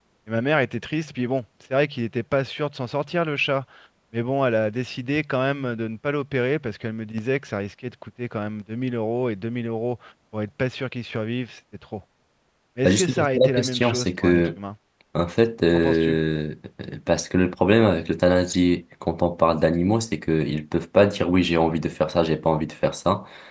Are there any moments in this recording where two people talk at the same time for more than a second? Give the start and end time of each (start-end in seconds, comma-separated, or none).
12.8-14.5